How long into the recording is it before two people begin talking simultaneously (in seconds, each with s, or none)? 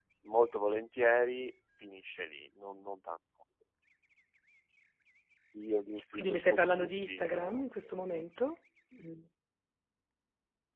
6.1 s